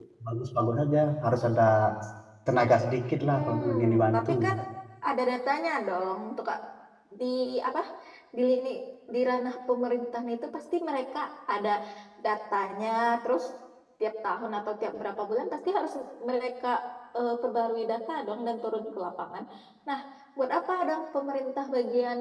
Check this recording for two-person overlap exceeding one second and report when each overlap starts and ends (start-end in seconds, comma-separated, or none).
3.3-4.5